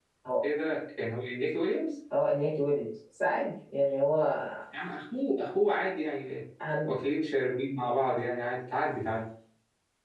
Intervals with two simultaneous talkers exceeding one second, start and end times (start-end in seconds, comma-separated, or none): none